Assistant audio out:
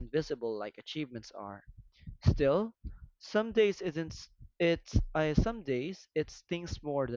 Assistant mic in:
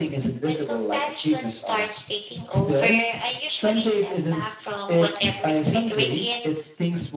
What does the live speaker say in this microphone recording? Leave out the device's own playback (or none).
When comparison starts taking over, I usually step back from whatever's triggering it